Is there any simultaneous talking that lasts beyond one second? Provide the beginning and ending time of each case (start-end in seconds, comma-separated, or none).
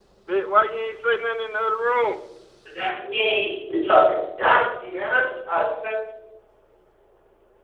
none